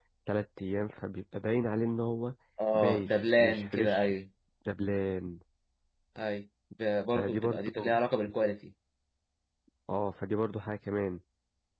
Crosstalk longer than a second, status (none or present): present